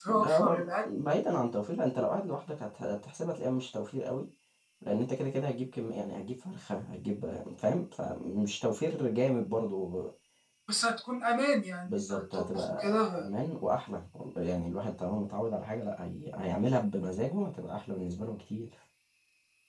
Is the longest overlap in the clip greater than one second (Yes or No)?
Yes